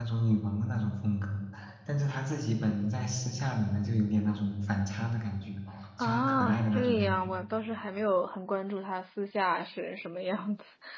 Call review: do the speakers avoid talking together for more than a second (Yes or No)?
No